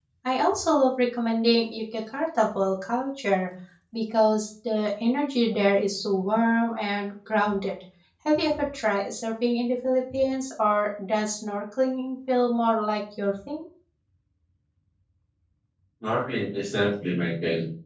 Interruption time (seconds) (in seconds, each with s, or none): none